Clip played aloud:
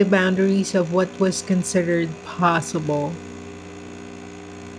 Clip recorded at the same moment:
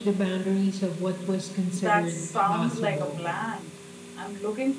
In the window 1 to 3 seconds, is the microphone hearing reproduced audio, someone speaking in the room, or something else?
both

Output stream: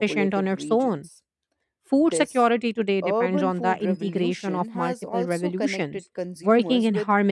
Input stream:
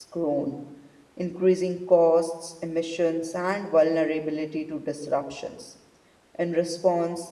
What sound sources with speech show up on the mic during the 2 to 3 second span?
user only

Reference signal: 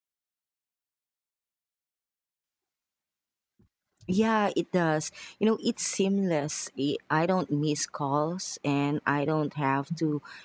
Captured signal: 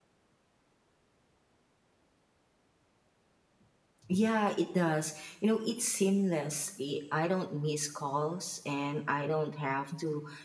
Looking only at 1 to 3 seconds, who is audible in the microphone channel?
neither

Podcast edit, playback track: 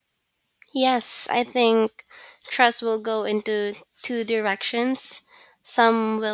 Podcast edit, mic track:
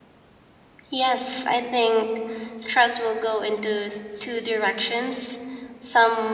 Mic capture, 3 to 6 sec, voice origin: echo only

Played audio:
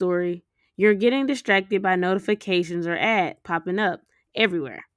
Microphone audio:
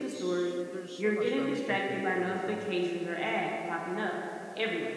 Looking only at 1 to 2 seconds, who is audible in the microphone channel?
both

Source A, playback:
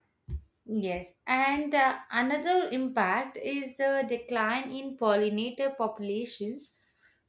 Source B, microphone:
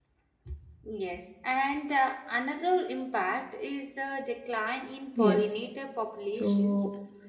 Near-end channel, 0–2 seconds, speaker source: echo only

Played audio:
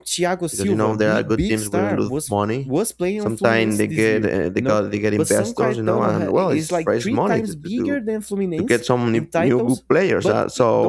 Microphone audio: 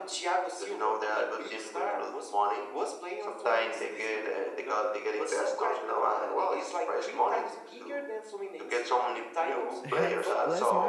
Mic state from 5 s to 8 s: echo only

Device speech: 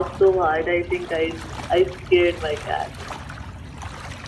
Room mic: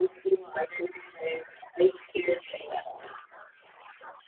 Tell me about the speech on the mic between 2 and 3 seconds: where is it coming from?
echo only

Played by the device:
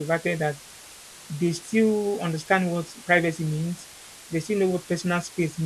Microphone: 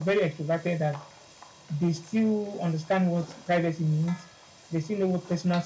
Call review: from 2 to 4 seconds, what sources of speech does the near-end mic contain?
echo only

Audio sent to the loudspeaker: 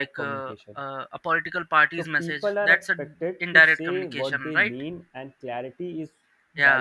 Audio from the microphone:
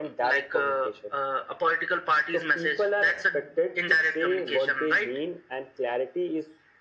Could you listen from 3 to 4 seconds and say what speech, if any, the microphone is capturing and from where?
echo only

